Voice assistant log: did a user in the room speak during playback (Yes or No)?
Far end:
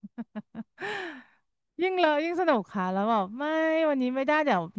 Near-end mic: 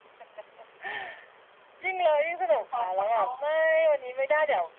Yes